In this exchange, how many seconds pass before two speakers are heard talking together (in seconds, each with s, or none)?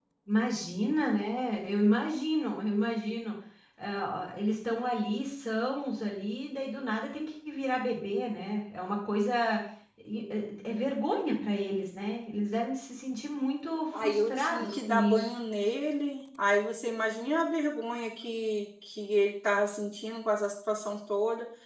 13.9 s